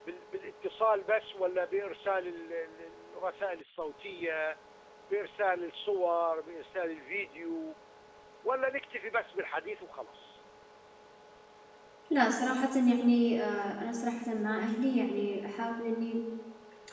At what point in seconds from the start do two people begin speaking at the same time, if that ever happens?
none

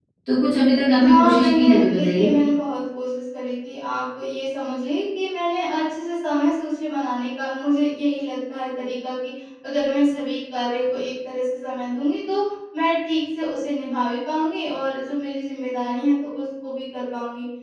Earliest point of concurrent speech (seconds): 1.0 s

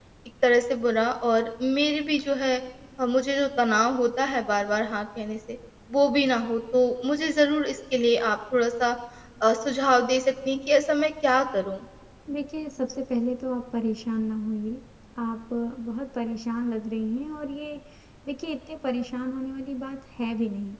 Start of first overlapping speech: none

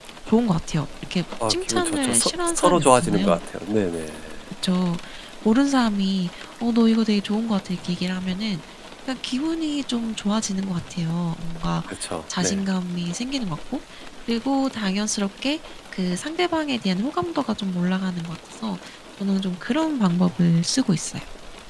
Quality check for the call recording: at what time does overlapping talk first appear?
1.5 s

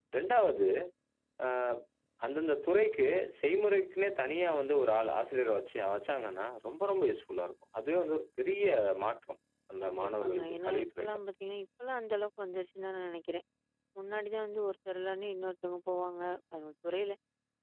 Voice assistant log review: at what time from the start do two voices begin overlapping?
9.8 s

